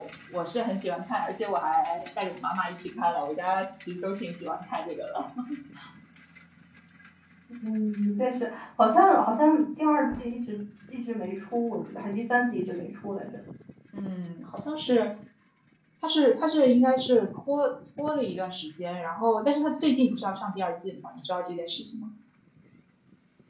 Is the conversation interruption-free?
Yes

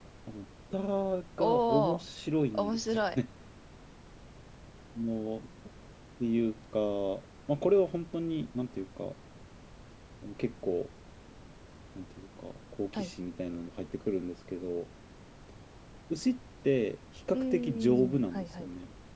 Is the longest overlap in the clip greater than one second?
Yes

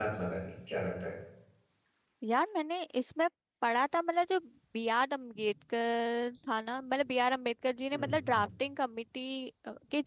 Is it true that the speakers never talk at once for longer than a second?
Yes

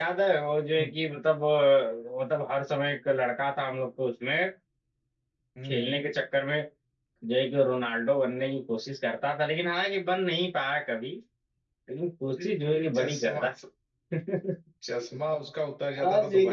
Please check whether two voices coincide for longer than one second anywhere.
No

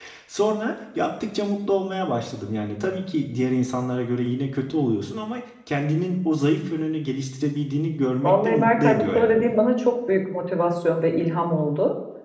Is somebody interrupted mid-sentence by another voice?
Yes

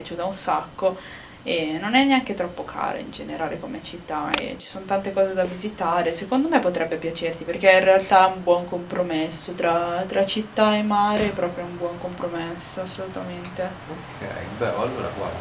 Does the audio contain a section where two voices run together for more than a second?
No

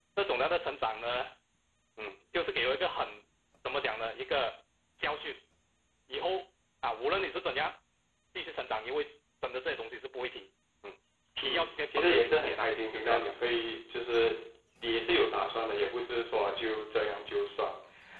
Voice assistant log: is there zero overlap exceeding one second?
No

